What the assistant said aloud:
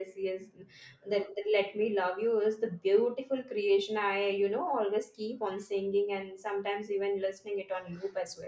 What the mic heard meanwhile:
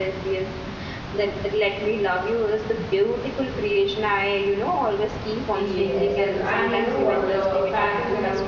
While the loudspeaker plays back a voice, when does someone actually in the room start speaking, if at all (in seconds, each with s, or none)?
5.5 s